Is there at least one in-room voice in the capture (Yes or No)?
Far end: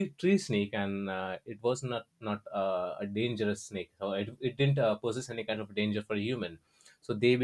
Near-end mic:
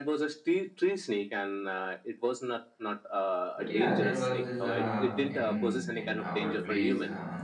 Yes